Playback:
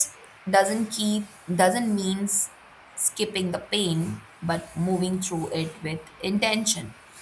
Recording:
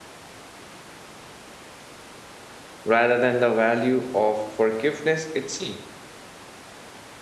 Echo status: none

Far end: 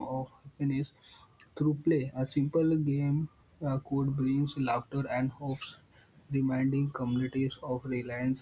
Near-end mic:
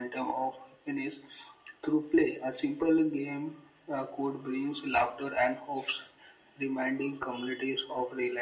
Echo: present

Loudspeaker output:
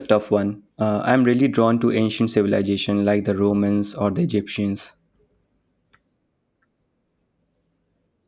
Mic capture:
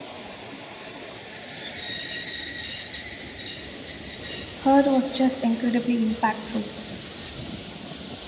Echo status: none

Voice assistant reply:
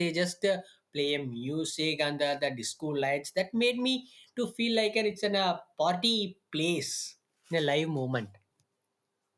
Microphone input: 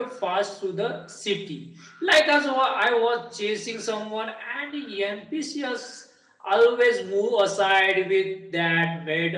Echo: none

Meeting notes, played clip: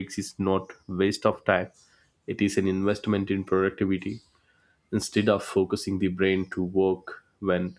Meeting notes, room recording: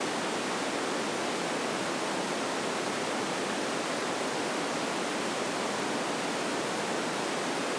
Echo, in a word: none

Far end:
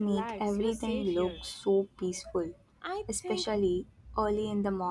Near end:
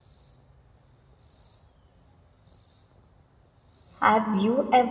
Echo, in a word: none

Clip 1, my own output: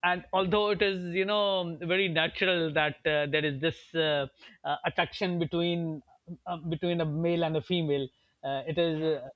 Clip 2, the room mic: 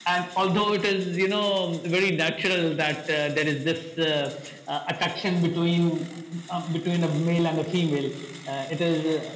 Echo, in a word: present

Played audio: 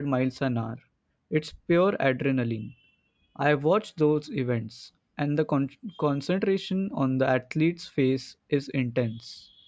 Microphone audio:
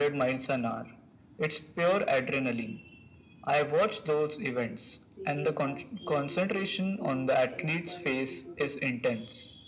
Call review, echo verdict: present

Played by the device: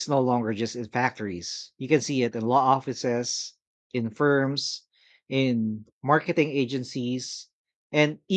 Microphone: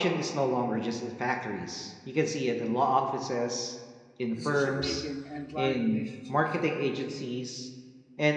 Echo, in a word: present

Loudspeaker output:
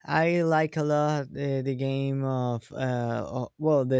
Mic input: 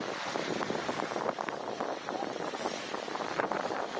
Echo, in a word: none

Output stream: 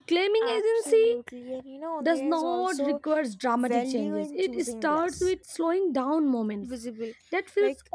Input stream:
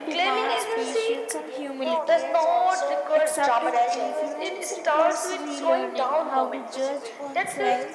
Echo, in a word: present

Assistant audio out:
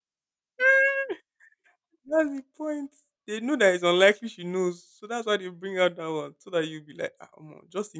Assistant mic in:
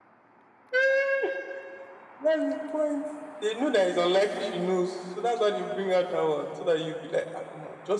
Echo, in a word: present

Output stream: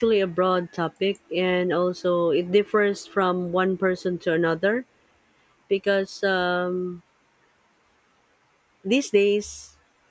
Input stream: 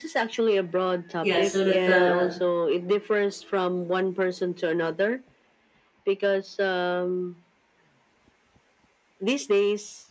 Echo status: present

